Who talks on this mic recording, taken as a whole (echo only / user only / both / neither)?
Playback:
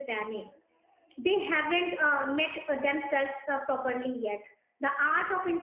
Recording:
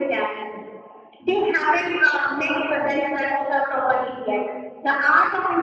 echo only